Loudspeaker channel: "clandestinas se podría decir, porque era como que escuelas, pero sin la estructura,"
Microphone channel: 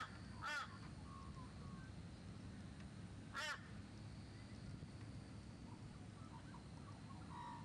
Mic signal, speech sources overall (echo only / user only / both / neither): neither